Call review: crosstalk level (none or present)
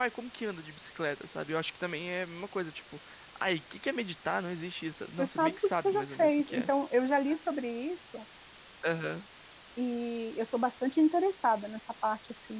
present